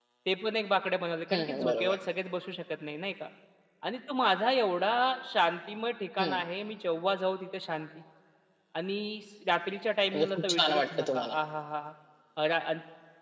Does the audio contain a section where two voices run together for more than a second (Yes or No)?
Yes